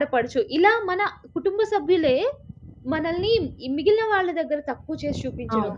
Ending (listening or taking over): listening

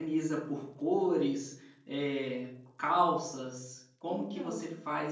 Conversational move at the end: listening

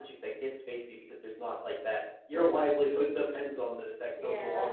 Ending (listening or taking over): taking over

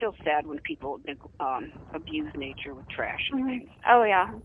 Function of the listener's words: taking over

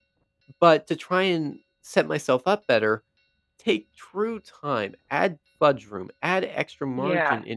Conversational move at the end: listening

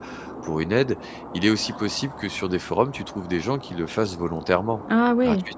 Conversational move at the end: taking over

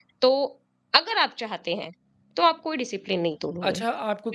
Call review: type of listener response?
taking over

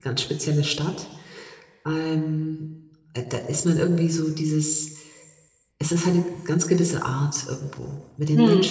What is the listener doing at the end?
listening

